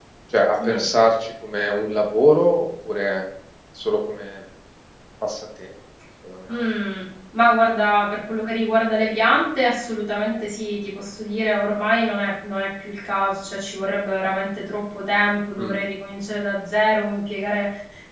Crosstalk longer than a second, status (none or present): none